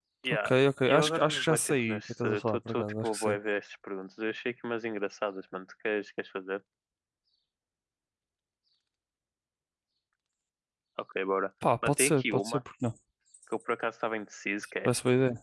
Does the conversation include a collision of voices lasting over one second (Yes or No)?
Yes